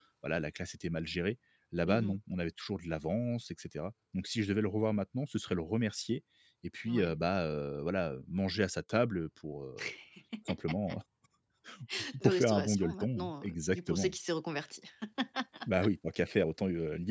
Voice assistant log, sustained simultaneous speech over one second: present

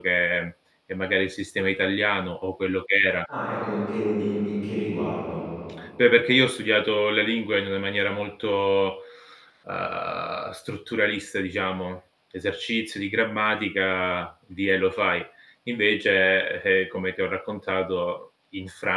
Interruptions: none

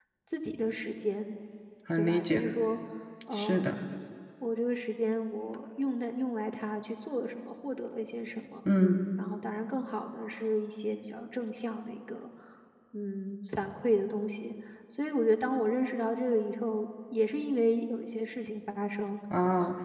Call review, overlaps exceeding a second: none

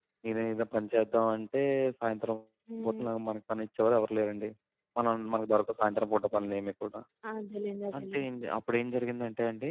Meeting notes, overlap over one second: none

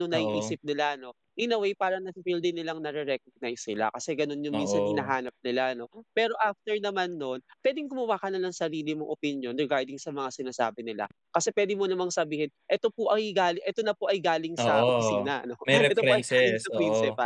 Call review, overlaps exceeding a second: present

